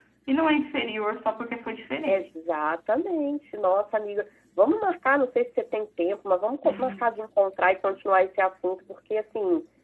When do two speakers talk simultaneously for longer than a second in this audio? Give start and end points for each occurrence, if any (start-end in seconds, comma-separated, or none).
none